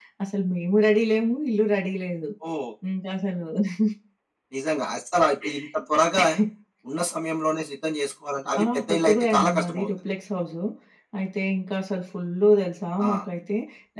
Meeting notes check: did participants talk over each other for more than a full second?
Yes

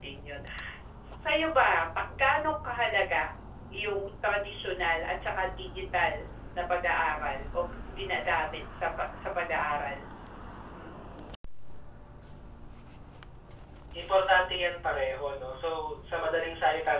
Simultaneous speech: No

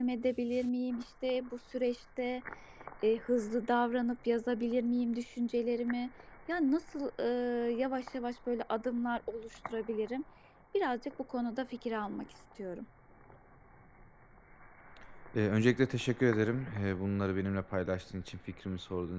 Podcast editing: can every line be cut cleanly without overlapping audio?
Yes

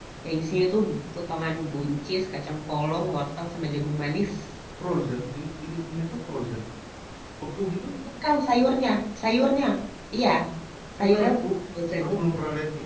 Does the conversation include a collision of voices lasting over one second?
No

